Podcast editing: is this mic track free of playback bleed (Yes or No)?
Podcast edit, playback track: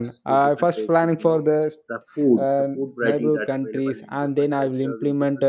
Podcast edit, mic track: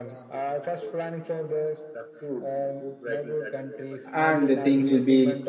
No